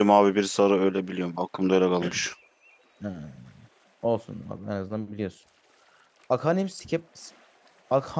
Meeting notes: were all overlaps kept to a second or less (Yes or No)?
Yes